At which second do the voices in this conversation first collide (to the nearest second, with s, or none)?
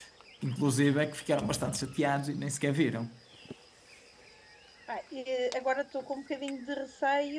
none